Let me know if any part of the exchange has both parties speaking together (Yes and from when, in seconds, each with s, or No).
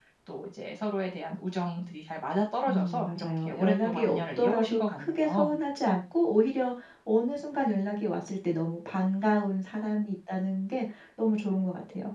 Yes, from 2.7 s